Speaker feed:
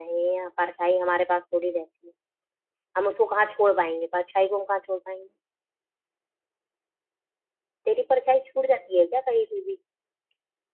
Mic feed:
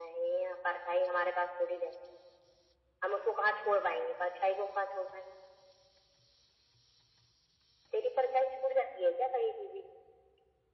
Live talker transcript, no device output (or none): none